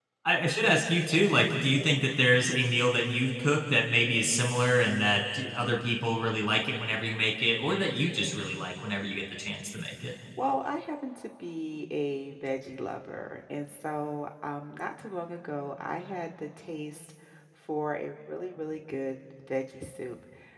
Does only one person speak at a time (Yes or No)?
Yes